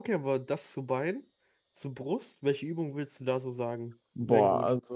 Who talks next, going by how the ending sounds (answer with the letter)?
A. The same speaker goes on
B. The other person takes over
B